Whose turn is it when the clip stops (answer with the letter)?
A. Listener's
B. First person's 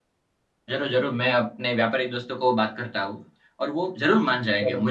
B